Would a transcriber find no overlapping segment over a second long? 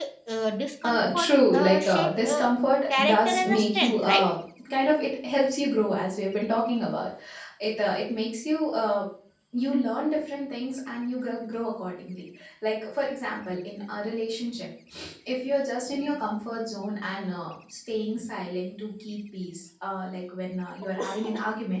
No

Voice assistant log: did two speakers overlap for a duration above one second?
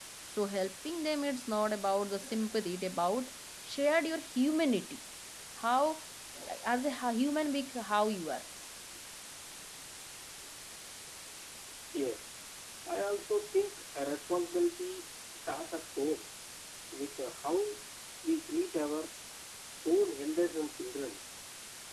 No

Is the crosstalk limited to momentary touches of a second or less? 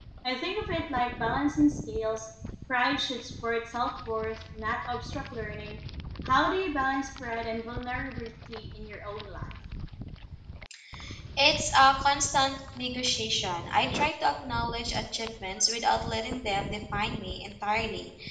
Yes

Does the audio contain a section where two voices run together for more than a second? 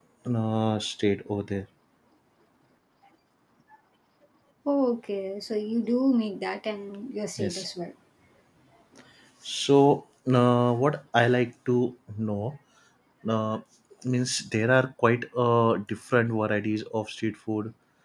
No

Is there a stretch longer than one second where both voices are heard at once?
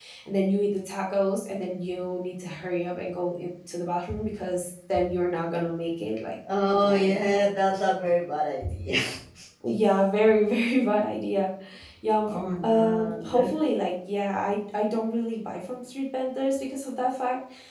Yes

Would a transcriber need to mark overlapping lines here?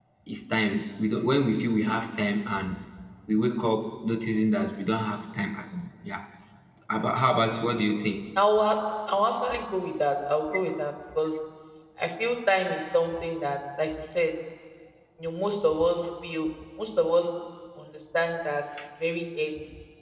No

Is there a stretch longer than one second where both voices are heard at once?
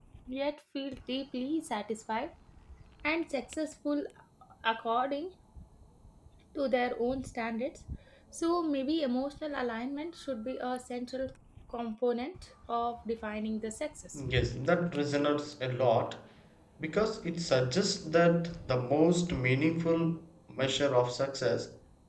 No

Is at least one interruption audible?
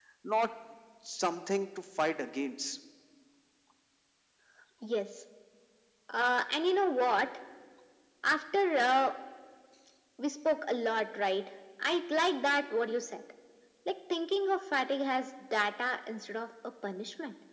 No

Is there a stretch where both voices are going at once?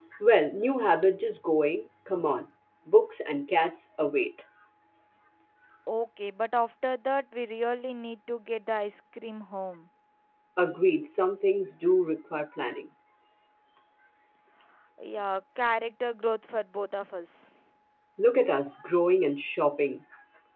No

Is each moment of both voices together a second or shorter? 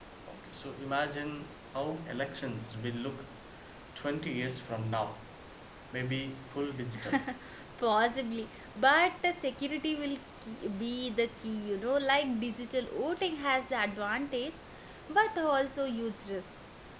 Yes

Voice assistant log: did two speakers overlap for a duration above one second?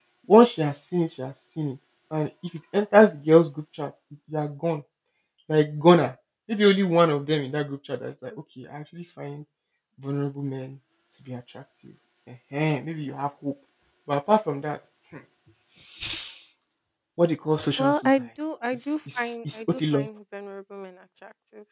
Yes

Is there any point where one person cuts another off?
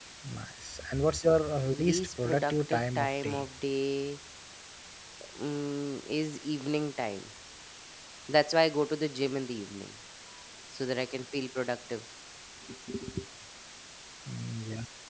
Yes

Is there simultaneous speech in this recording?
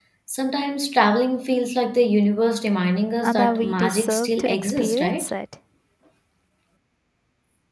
Yes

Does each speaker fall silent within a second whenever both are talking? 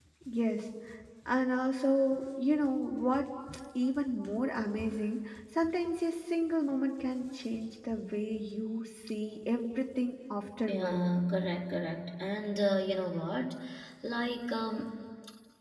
Yes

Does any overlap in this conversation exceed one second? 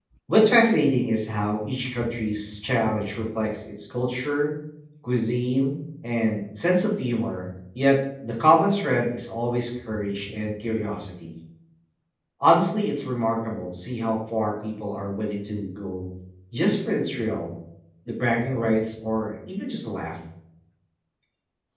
No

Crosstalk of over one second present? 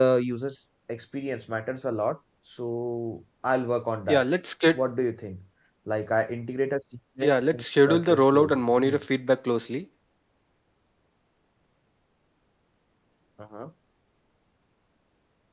Yes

